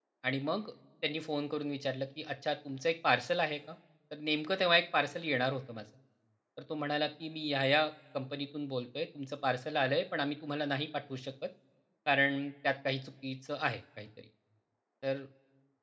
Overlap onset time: none

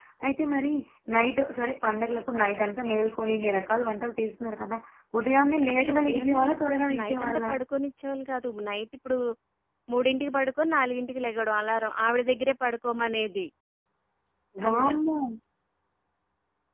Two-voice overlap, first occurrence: 6 s

